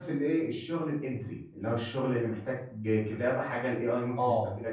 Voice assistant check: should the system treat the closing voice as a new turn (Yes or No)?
Yes